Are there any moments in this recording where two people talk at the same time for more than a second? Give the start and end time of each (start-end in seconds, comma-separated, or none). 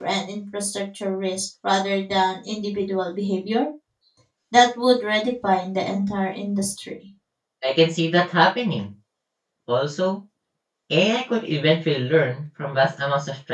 none